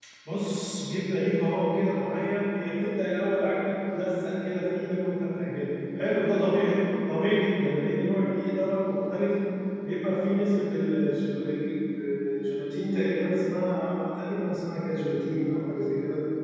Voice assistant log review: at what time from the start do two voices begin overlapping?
none

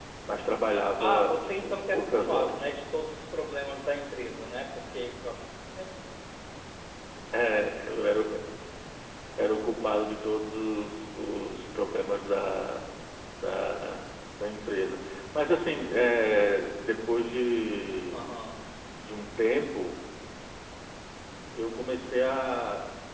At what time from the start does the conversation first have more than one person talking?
1 s

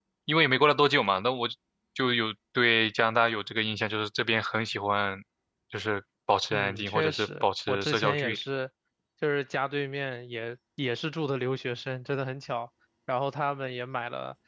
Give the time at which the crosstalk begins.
7 s

